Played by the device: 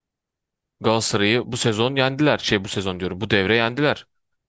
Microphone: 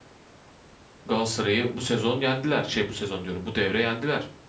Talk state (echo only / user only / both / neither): echo only